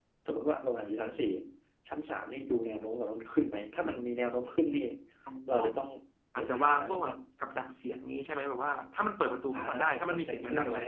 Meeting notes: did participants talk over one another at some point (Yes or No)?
Yes